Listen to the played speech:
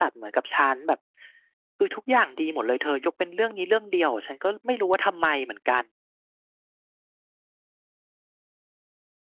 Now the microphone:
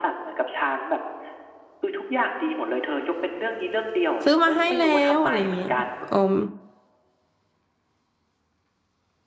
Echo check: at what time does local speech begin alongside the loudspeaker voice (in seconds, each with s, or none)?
4.2 s